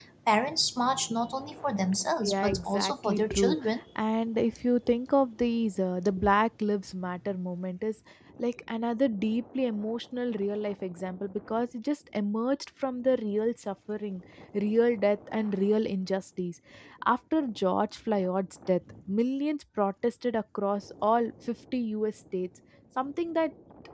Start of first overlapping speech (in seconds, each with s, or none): 2.2 s